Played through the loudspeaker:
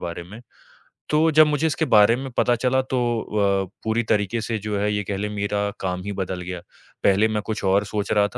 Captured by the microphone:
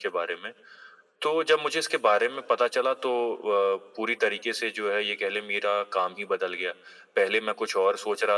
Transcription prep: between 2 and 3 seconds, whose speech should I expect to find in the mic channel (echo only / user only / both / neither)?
echo only